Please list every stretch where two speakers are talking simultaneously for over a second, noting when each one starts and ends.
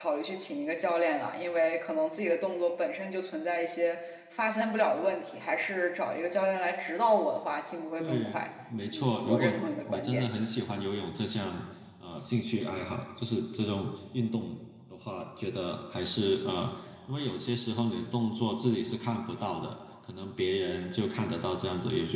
8.9-10.3

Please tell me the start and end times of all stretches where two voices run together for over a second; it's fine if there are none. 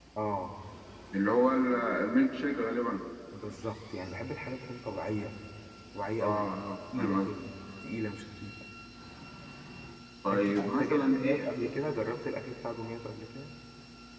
10.3-11.7

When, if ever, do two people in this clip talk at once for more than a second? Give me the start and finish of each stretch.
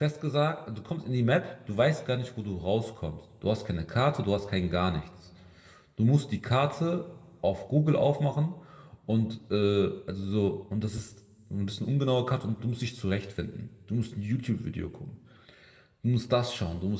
none

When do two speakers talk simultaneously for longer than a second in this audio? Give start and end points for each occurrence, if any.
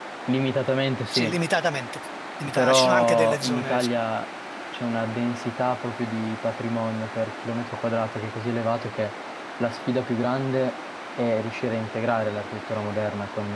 2.5-3.9

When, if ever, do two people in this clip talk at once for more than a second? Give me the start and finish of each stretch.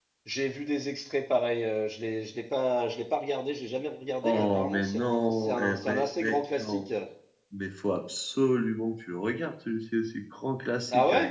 4.2-6.9

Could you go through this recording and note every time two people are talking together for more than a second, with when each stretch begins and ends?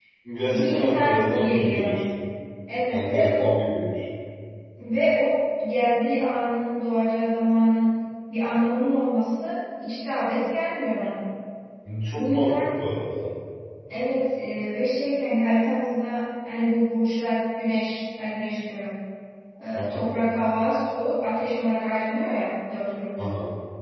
0.5-2.0

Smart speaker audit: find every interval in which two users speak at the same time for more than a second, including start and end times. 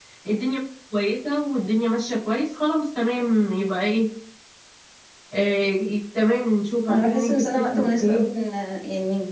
6.9-8.3

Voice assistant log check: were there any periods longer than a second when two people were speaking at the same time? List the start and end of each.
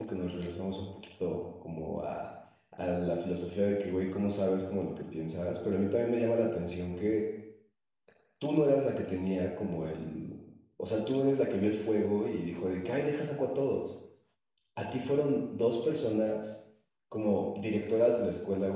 none

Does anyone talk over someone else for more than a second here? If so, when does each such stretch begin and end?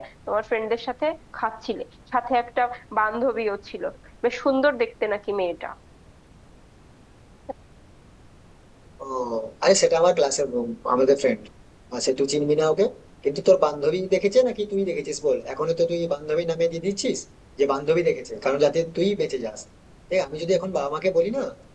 none

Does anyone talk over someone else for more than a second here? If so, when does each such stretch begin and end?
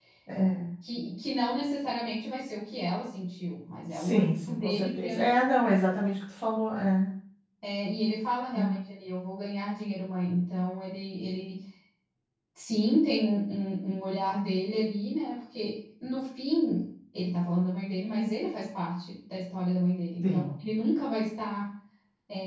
3.9-5.5

